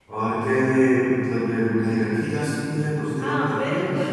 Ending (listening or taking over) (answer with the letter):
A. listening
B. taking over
B